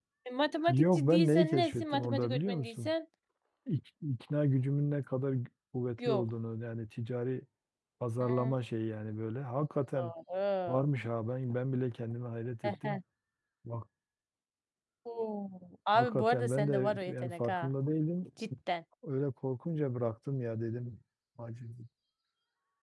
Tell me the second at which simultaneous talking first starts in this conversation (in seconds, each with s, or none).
0.7 s